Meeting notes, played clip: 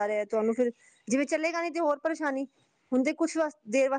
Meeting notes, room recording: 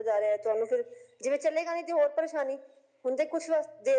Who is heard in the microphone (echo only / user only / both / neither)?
echo only